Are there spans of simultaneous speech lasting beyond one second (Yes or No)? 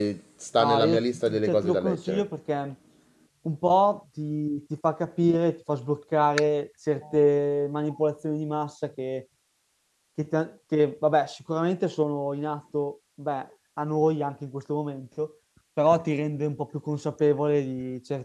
Yes